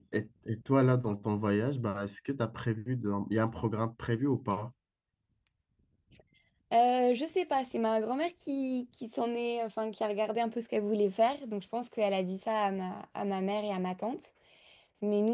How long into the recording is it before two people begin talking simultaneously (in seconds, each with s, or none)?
none